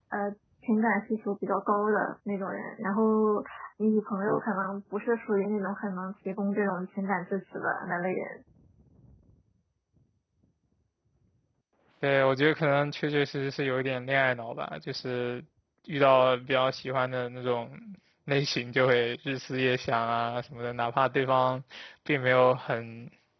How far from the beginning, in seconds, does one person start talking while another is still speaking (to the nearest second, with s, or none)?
none